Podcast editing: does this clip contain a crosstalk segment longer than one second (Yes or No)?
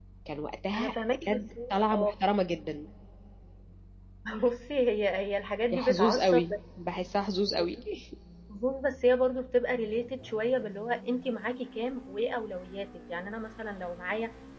Yes